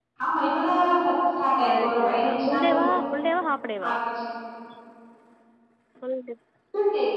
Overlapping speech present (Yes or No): Yes